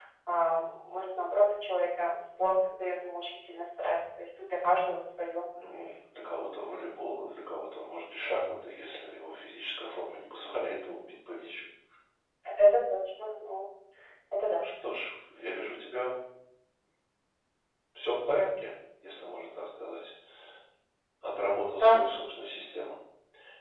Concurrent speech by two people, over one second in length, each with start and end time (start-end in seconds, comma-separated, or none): none